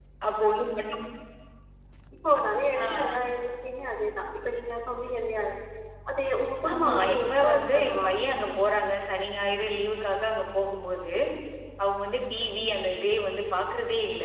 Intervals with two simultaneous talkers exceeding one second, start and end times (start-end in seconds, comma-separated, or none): 6.7-8.5